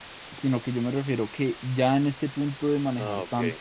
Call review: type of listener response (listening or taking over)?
listening